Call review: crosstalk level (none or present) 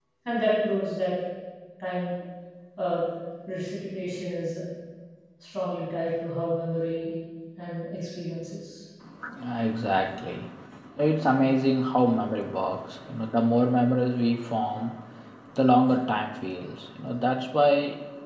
none